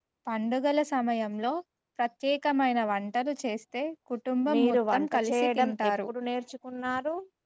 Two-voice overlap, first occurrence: 4 s

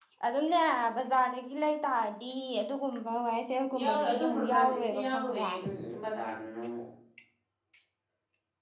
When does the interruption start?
4 s

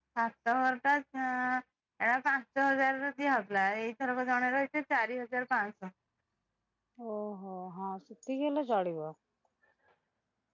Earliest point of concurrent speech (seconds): none

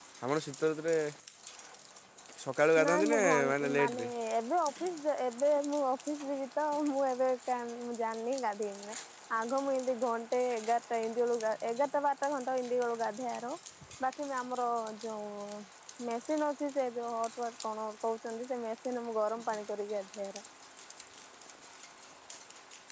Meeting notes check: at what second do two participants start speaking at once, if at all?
3 s

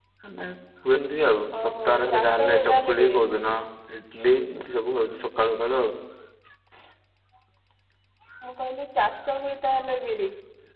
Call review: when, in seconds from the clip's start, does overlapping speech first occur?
2 s

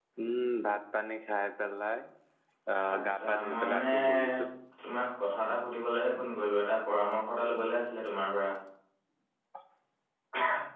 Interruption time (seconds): 3 s

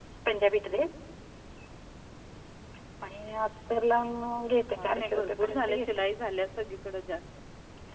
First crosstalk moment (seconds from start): 5 s

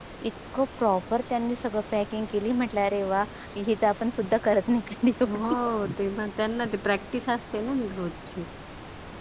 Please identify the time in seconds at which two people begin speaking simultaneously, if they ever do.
none

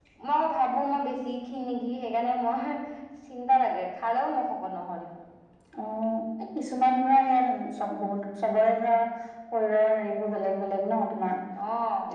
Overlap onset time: none

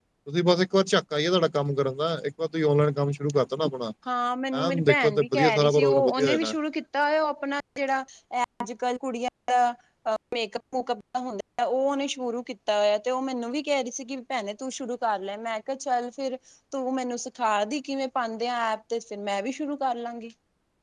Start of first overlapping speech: 5 s

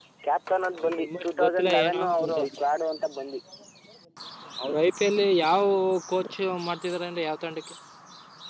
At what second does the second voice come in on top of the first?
1 s

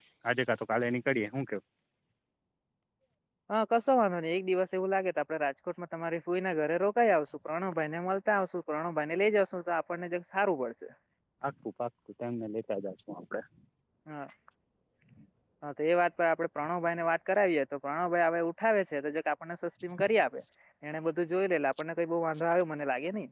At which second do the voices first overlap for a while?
none

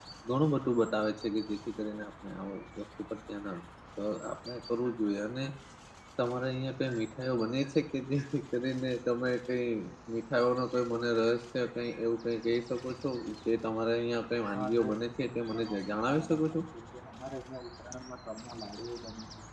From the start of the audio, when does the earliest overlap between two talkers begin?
15 s

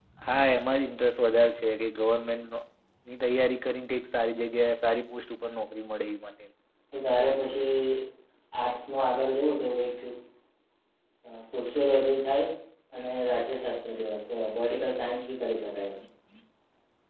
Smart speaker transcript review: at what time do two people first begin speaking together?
none

